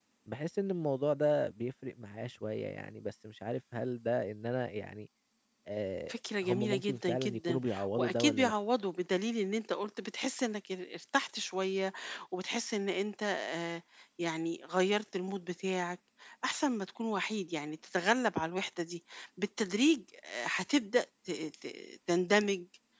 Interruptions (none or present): present